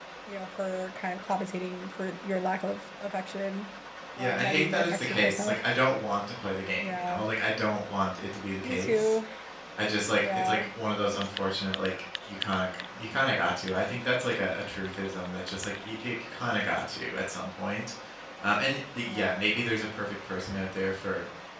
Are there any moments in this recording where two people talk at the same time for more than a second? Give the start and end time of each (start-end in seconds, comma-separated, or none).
4.2-5.6